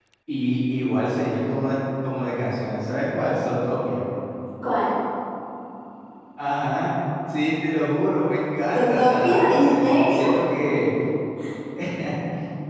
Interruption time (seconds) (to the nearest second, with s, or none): 9 s